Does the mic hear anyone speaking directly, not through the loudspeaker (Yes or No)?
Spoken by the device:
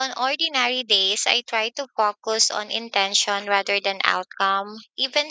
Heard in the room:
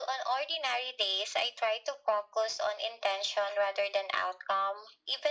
No